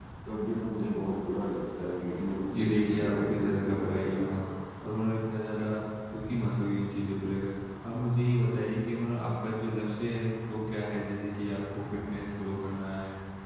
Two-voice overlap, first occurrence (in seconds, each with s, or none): 2.5 s